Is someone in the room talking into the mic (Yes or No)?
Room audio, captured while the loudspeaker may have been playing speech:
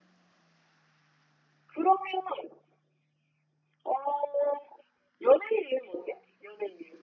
No